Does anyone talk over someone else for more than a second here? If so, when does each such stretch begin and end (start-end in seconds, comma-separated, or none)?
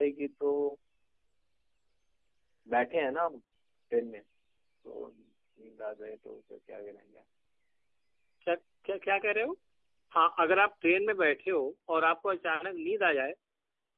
none